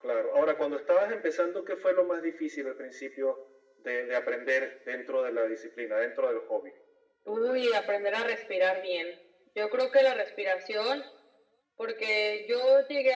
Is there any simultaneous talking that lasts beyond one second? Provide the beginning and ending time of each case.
none

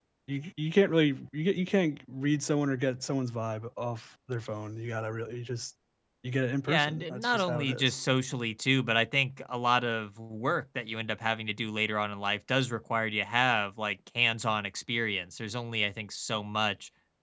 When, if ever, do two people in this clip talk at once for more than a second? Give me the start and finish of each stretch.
6.7-7.9

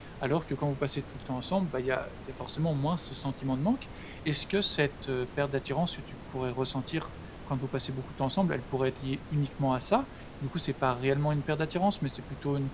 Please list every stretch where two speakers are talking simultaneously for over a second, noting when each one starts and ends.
none

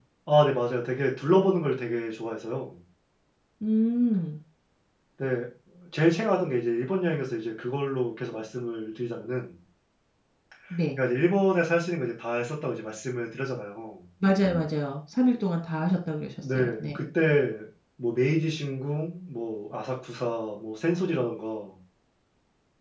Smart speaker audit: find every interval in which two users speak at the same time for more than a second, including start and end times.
none

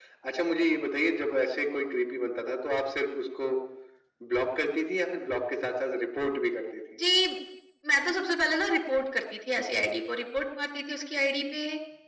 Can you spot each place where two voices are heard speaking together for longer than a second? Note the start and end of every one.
none

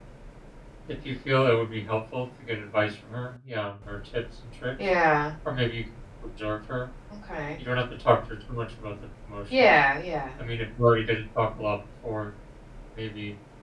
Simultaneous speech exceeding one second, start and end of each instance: none

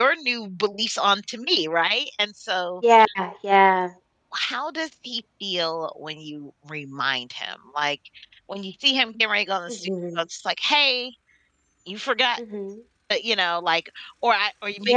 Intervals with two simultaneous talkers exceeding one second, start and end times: none

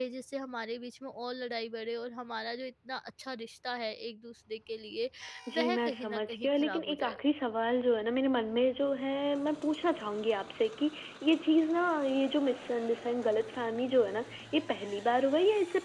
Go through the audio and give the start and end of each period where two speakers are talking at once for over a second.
5.6-7.2

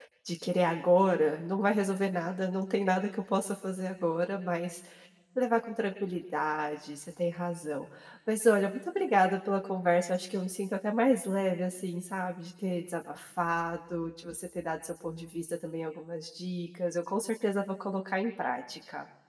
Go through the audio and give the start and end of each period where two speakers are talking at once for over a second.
none

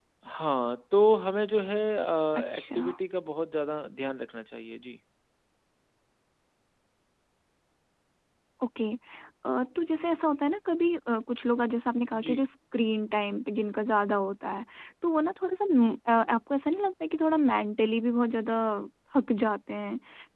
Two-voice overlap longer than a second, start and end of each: none

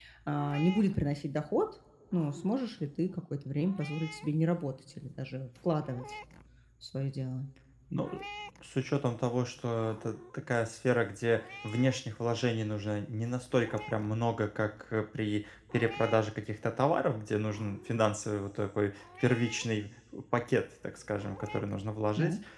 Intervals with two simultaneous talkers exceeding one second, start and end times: none

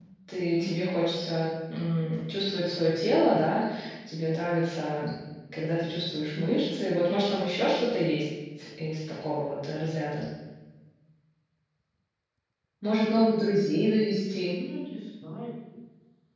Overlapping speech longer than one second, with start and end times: none

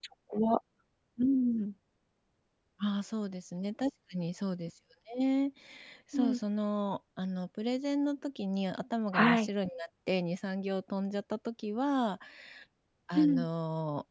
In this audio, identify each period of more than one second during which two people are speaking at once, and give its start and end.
none

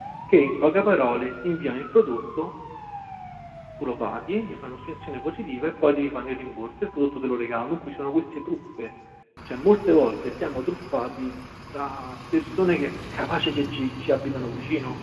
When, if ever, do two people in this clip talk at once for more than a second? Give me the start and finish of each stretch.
none

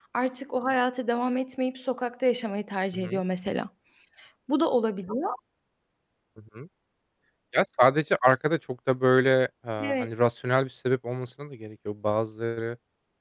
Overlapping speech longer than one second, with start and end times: none

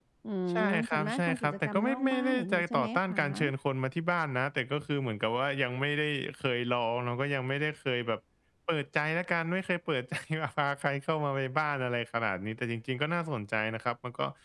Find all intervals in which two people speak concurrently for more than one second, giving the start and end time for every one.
0.6-3.2

